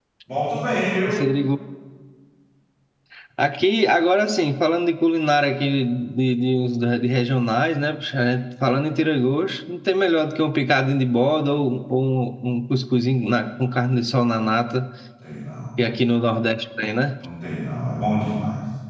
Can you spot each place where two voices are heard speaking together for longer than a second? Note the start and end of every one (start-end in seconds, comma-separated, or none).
none